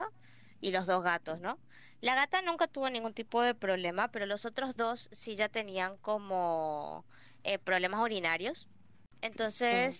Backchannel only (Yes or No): Yes